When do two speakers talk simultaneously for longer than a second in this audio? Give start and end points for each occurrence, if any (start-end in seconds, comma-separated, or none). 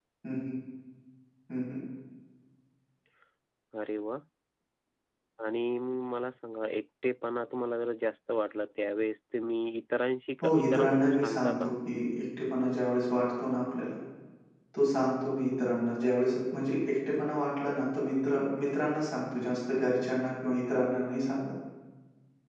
10.4-11.7